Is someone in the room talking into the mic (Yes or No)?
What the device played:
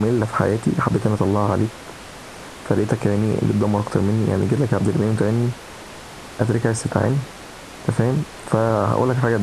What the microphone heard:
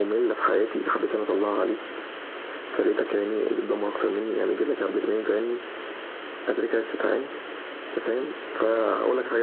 No